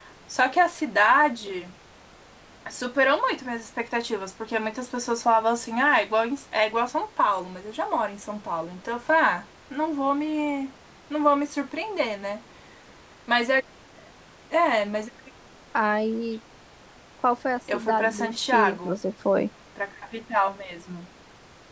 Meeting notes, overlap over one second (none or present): present